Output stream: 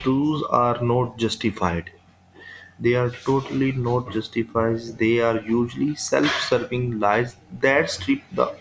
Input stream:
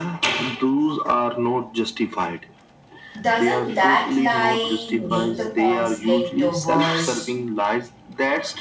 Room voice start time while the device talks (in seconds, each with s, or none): 3.2 s